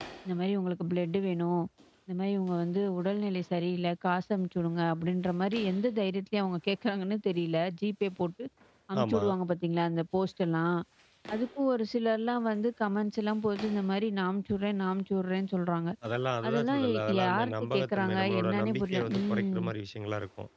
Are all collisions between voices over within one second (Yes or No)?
No